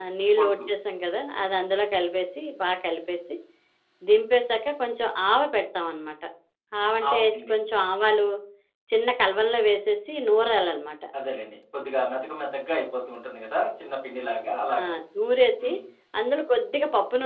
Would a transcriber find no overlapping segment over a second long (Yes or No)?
Yes